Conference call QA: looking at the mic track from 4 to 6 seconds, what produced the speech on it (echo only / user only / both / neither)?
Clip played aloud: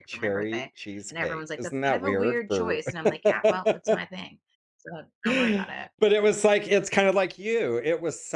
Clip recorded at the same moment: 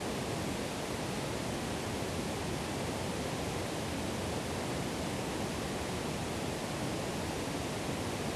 neither